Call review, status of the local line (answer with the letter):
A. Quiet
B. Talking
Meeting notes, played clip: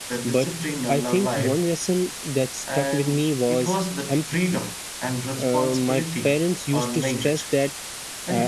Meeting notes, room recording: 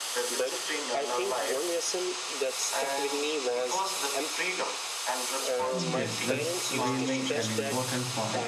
B